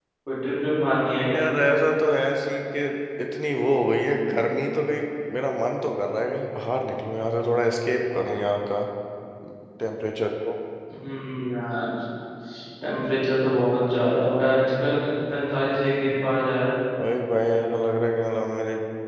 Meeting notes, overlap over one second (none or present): none